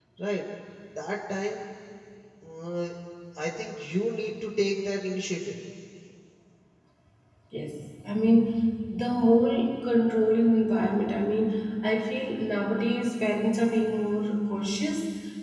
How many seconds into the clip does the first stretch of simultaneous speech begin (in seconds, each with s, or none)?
none